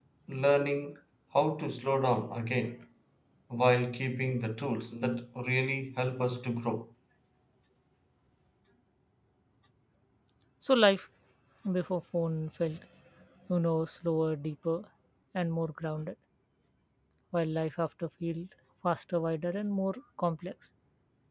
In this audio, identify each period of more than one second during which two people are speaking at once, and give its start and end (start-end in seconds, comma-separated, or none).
none